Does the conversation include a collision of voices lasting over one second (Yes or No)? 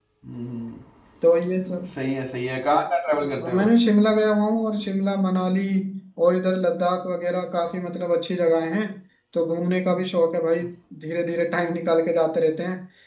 No